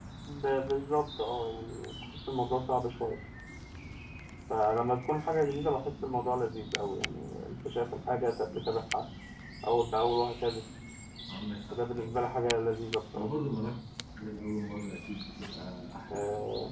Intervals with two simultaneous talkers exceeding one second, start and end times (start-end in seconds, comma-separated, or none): none